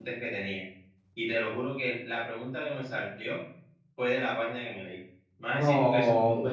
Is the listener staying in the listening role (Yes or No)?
No